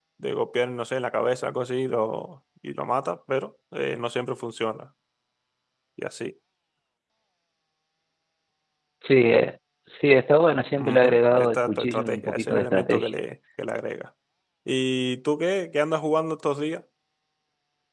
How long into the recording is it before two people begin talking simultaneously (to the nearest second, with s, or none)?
11 s